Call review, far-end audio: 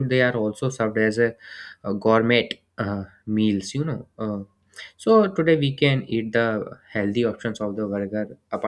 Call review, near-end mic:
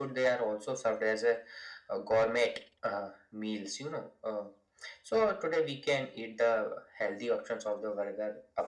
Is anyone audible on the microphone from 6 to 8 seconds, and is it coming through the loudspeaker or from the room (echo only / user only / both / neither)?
echo only